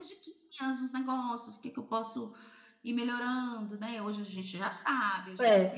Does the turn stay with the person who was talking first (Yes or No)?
Yes